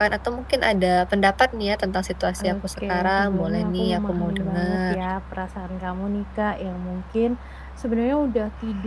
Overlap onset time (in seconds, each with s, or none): 2.4 s